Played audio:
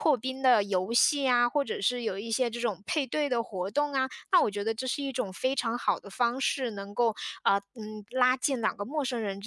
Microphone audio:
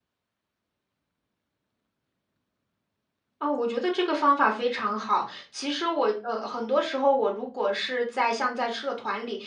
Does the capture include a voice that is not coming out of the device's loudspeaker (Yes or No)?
Yes